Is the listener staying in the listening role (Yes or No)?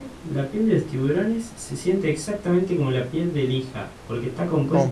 Yes